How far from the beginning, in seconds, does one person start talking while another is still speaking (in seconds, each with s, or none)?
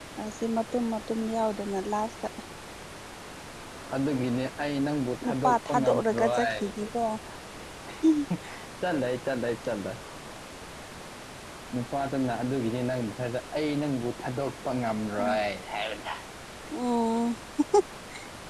5.2 s